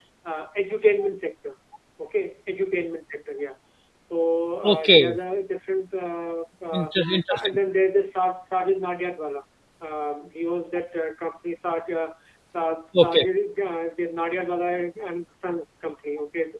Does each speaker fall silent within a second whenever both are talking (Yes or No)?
Yes